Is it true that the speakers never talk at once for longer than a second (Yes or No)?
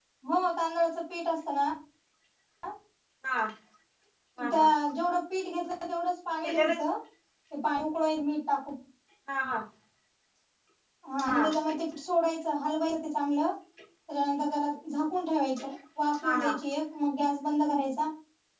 Yes